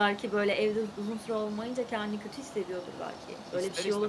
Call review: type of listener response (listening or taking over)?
taking over